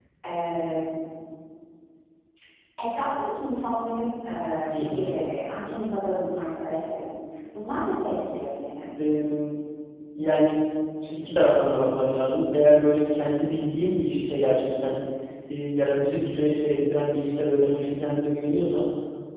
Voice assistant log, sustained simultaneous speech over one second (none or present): none